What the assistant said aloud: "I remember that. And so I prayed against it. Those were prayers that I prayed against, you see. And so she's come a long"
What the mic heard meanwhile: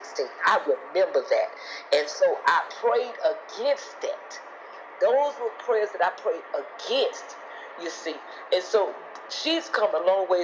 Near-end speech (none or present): none